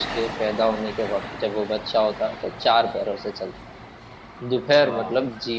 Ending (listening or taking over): listening